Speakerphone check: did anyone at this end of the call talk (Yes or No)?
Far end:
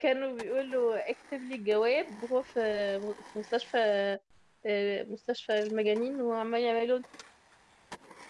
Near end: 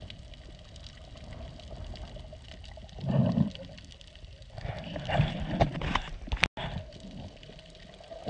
No